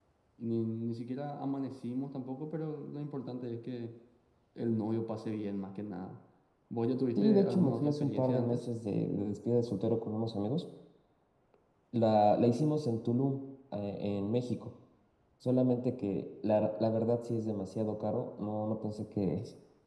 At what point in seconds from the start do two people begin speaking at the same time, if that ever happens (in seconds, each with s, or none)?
7.2 s